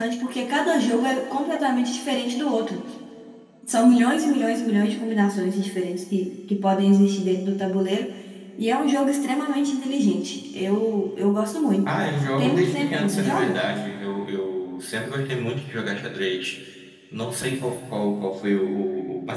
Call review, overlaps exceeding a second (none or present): present